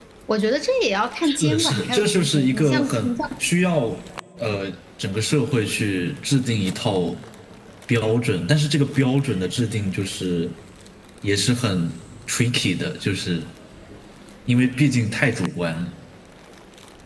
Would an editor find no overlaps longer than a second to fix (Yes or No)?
No